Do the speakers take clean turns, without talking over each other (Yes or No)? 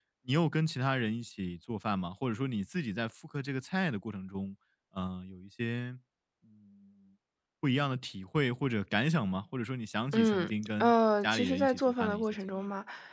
No